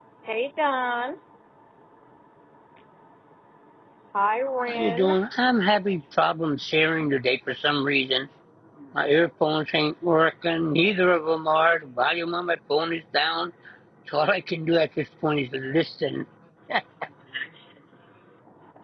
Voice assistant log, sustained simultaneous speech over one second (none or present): none